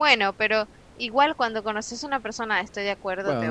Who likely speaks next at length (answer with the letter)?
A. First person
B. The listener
B